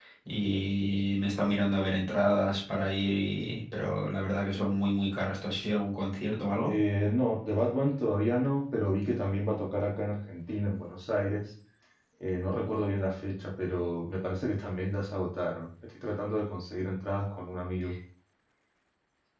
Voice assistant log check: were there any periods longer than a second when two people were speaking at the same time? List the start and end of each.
none

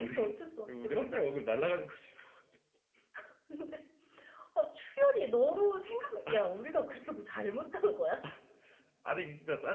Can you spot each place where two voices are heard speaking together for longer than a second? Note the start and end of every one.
none

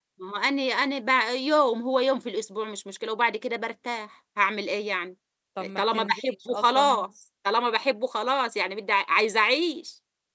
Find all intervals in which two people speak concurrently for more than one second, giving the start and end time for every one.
5.8-7.1

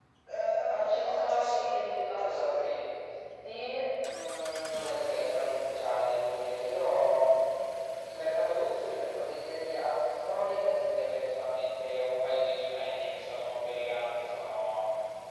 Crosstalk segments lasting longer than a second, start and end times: 0.7-2.7

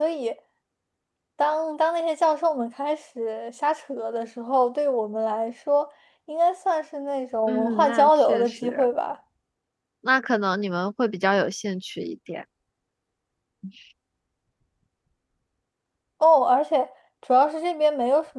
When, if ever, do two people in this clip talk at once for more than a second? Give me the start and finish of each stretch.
7.5-8.9

